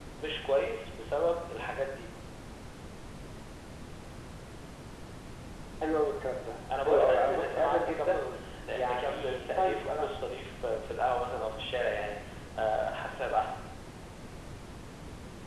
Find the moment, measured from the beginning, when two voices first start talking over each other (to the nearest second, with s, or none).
7 s